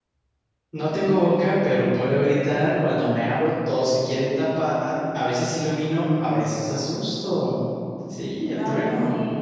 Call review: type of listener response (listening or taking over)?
taking over